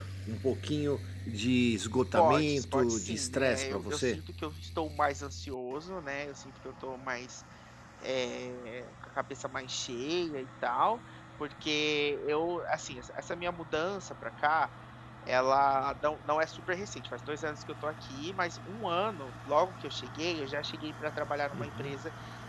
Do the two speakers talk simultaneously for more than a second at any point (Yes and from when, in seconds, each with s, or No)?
Yes, from 2.1 s